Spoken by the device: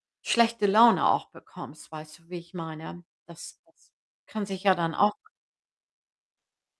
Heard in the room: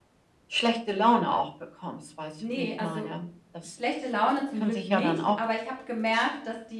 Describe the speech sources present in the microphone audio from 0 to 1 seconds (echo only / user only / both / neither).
echo only